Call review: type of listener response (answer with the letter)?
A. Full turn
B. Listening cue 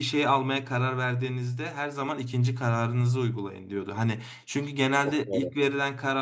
B